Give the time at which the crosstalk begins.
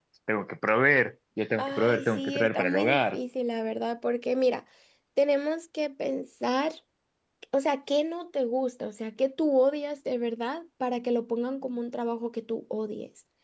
1.6 s

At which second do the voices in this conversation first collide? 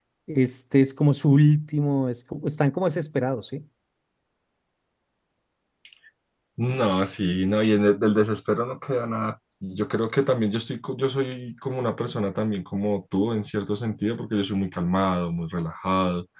none

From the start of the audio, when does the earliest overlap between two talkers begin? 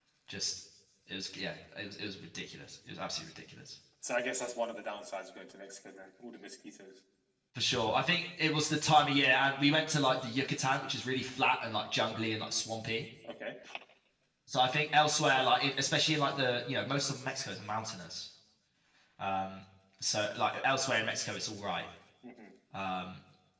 none

